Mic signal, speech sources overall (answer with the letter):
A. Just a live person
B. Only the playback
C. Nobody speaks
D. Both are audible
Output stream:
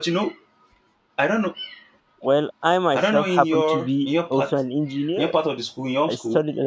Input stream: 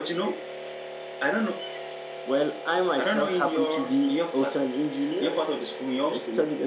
B